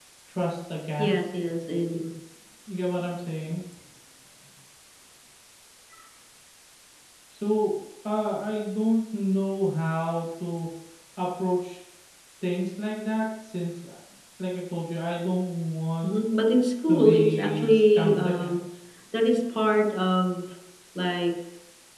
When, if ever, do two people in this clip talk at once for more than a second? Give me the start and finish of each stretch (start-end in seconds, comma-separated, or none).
16.9-18.5